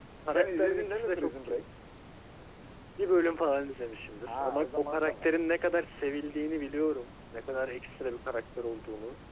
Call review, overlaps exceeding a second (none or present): present